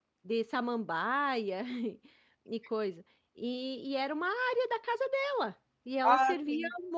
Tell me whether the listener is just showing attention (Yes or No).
Yes